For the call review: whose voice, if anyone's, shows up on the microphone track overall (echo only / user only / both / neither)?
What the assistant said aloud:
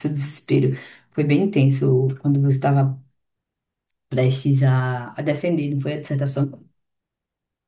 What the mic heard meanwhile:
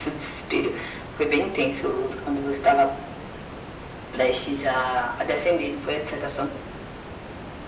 echo only